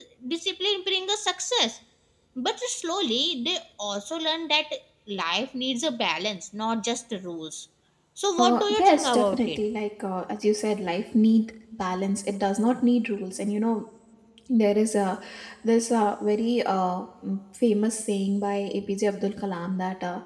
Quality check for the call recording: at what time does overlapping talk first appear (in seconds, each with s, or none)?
8.4 s